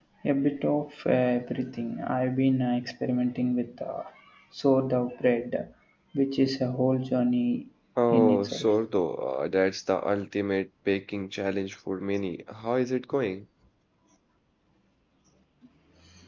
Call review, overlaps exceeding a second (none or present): none